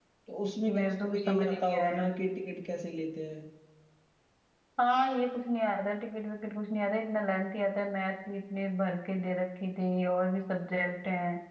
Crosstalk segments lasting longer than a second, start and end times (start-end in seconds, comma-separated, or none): 0.7-2.0